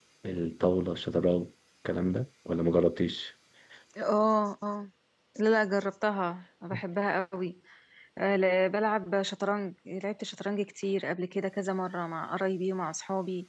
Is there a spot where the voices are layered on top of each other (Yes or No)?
No